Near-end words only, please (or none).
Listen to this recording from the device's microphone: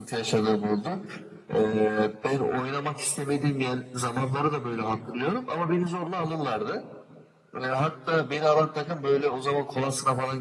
none